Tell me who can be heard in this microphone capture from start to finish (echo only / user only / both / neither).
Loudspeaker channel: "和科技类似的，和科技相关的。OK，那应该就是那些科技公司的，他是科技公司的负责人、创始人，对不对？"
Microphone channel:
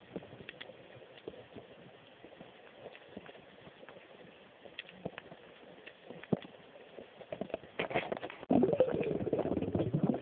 neither